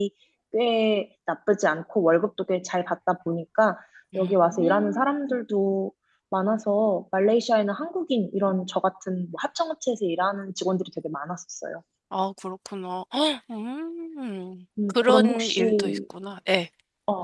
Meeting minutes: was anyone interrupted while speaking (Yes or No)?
Yes